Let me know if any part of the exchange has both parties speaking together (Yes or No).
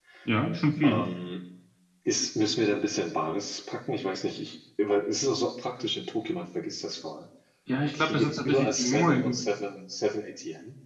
Yes